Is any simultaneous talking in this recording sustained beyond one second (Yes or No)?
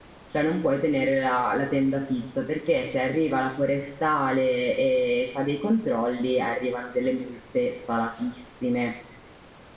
No